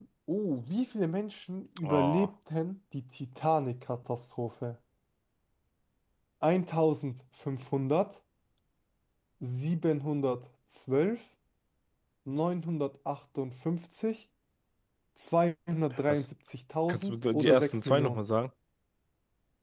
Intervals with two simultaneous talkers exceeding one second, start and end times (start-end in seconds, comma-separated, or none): 16.9-18.2